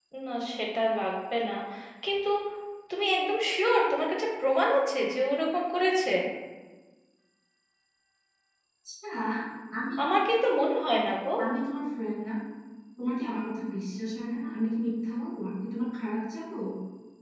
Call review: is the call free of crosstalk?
Yes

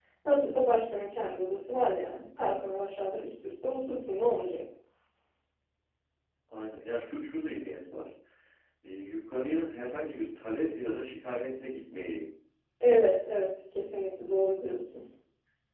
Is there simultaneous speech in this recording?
No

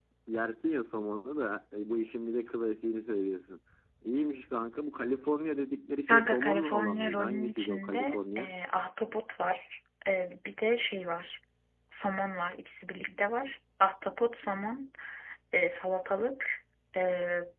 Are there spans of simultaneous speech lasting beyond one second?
Yes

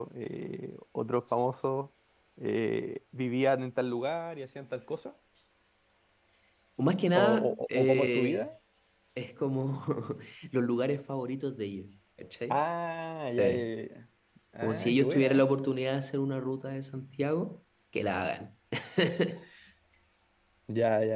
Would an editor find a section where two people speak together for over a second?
Yes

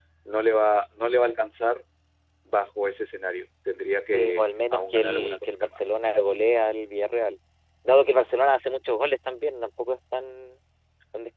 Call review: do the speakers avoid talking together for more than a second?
No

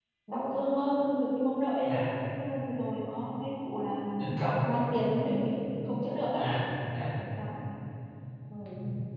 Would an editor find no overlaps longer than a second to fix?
Yes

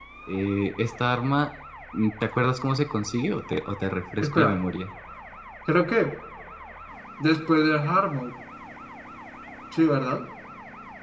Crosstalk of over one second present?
No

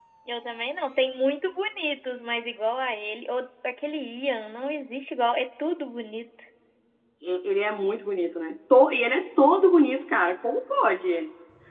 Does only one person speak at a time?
Yes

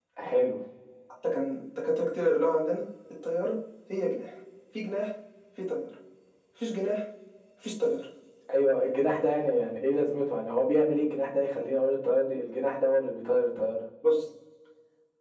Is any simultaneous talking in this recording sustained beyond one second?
No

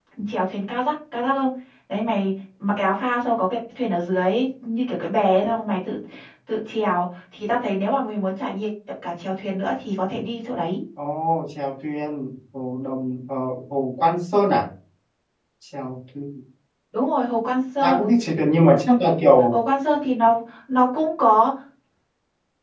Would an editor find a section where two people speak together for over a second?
No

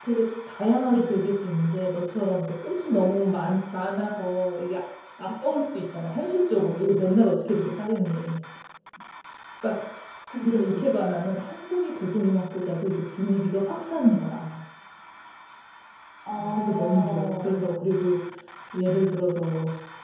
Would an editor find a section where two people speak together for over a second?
Yes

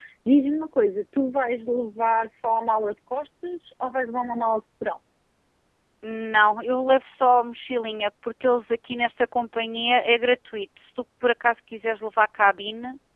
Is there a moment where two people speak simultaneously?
No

